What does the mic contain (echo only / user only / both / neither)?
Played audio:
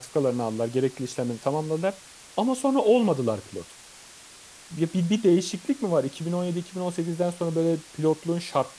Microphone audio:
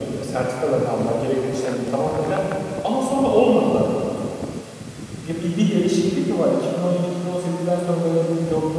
echo only